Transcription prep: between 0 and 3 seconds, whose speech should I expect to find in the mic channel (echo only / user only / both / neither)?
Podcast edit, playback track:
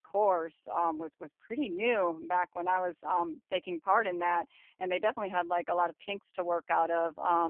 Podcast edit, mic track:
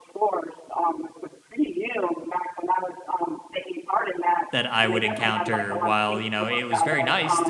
echo only